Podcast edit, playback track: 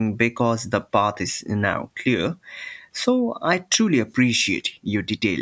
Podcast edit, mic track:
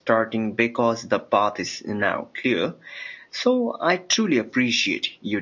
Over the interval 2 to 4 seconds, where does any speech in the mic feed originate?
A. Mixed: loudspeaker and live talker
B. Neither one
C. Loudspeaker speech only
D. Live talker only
C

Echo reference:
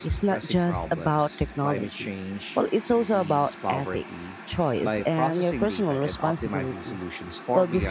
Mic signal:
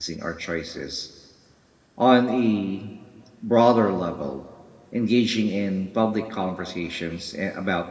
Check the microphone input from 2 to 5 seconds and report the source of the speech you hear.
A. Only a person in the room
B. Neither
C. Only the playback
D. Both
A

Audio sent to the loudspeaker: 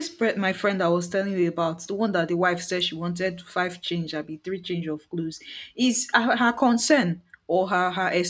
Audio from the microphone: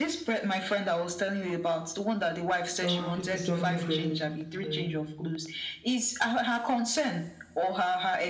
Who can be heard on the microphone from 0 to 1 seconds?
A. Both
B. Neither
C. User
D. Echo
D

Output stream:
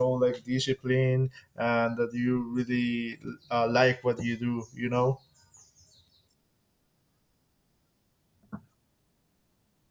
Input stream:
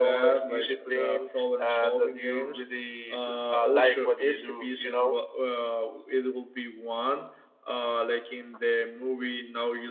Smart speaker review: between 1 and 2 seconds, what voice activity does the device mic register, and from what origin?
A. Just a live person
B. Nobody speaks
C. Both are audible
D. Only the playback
C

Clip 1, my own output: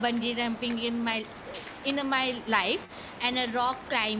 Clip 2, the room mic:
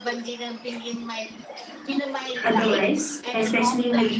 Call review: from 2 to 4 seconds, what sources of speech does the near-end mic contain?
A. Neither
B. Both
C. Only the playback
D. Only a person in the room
B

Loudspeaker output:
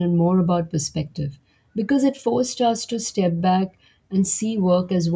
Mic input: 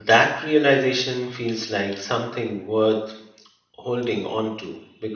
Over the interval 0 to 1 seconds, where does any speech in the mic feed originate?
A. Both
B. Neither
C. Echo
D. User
D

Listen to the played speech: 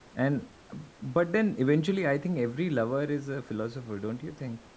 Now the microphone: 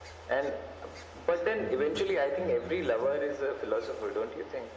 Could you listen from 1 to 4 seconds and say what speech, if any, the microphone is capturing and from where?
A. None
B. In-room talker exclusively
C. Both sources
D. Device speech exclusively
C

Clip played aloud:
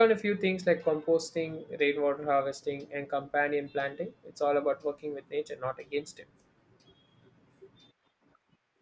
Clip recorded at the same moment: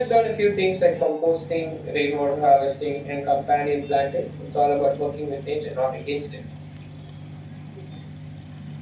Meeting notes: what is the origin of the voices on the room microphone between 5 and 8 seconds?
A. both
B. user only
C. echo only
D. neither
C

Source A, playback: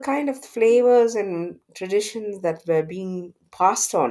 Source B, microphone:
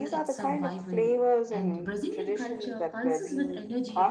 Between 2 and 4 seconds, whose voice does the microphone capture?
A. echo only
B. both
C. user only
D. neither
B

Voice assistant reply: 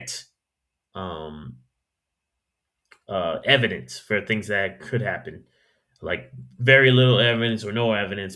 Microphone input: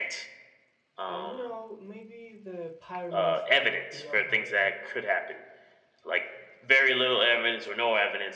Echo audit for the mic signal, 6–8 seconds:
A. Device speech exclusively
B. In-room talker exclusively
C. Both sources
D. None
A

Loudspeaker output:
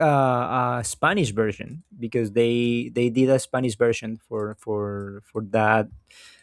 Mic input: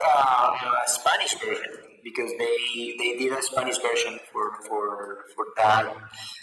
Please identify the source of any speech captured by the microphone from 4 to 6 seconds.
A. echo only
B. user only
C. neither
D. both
A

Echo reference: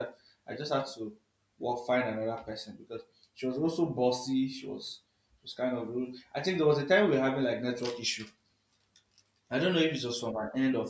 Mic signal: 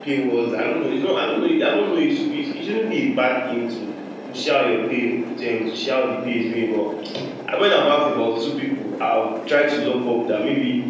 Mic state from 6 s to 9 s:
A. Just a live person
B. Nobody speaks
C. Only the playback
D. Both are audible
A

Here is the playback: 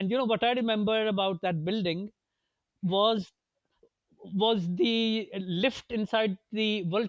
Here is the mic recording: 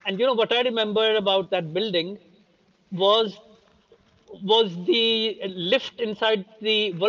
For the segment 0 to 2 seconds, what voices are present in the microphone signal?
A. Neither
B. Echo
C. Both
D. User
B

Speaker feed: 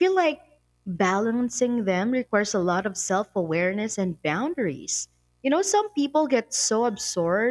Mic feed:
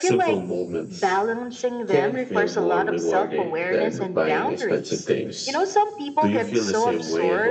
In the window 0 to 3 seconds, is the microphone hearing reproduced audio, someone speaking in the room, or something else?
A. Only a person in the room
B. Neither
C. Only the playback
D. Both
D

